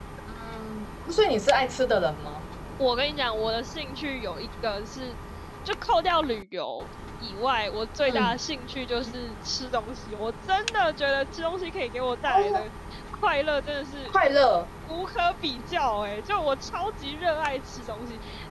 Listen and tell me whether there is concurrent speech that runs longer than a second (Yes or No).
No